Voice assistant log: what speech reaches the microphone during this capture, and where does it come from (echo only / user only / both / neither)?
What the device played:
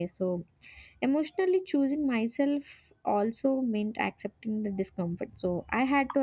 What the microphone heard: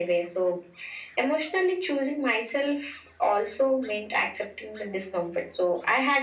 echo only